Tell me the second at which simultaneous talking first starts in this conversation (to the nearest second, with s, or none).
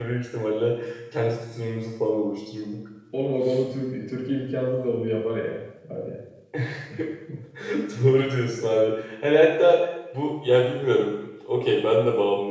none